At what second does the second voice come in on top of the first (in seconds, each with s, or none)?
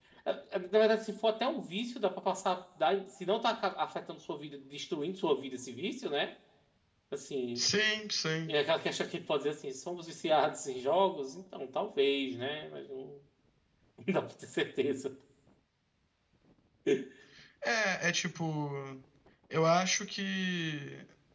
none